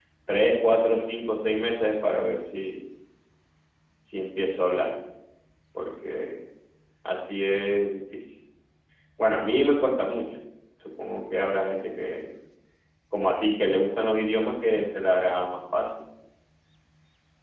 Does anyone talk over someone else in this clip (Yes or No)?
No